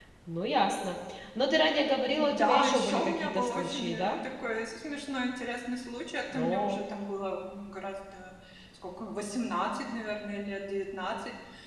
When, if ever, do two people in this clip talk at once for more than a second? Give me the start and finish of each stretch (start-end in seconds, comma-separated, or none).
2.2-4.2